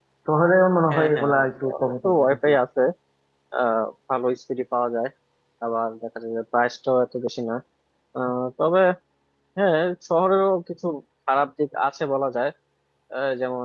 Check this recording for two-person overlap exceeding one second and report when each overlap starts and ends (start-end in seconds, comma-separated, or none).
0.9-2.5